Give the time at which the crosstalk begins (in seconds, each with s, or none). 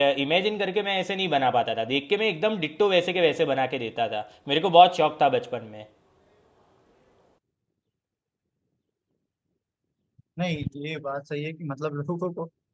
none